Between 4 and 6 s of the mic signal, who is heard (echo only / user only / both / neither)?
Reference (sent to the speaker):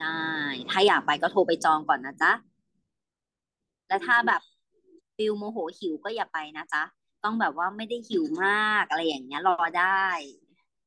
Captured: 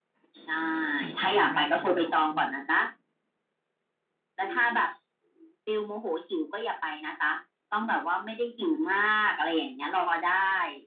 echo only